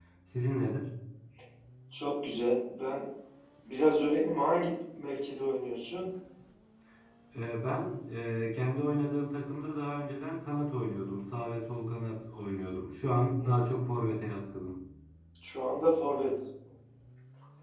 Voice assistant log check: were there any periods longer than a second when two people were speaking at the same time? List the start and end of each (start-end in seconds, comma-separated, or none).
none